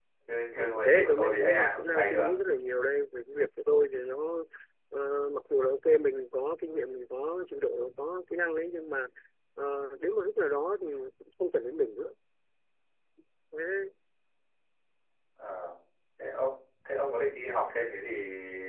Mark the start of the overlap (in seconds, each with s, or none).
0.8 s